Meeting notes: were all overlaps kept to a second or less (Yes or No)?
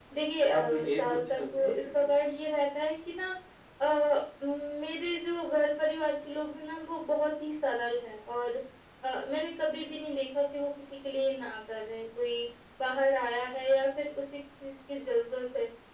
No